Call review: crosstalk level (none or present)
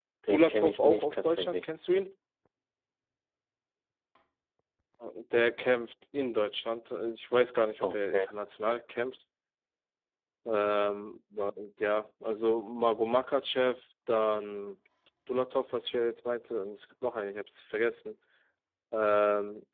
present